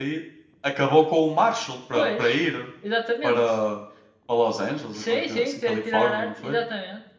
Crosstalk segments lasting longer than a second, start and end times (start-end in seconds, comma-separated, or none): 4.9-6.6